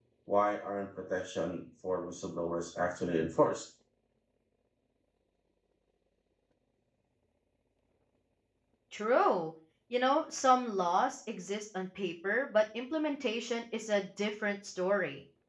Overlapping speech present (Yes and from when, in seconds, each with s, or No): No